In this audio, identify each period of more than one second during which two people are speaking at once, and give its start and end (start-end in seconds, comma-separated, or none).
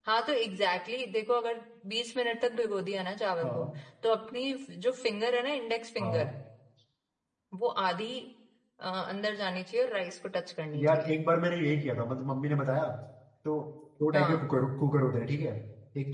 none